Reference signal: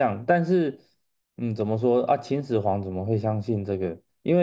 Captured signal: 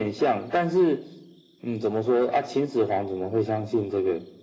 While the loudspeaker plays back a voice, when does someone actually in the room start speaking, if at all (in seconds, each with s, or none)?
none